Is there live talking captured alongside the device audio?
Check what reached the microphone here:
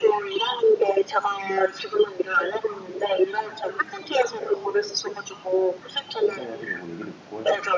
Yes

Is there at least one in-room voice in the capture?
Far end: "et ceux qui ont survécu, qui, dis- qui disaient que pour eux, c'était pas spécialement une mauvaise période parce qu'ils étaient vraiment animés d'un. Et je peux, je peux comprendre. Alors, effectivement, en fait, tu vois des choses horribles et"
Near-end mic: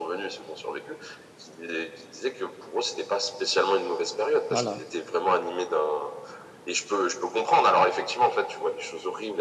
Yes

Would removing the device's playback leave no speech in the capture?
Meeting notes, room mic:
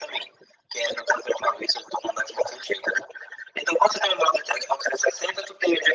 Yes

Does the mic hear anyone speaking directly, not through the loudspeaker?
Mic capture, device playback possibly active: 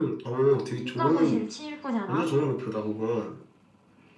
Yes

